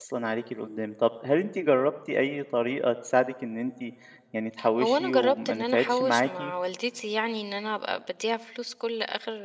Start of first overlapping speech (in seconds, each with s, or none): 4.8 s